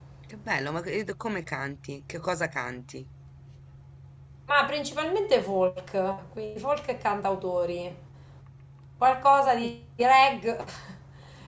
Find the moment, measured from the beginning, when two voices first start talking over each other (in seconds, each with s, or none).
none